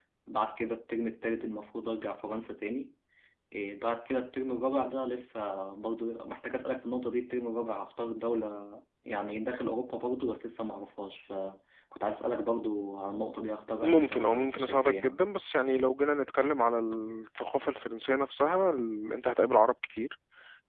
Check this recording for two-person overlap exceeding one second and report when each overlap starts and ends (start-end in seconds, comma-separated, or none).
13.8-15.2